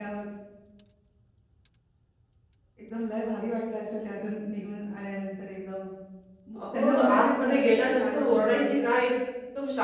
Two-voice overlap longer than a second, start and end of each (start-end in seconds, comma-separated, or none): 6.6-8.8